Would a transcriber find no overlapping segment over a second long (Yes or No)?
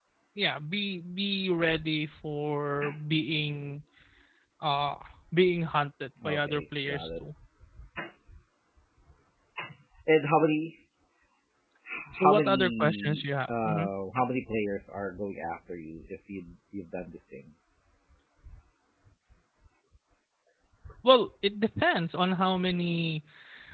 No